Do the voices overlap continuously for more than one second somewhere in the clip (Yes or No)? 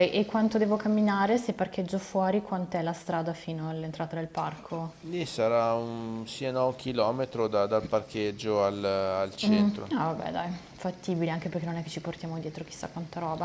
No